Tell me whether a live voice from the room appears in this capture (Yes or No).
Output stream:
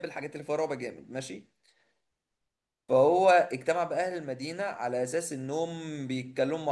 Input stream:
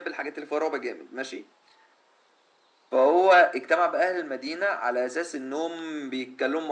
No